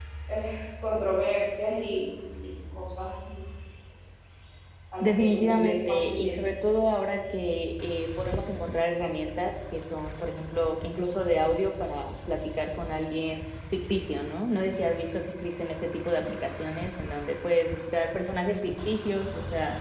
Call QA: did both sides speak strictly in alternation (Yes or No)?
No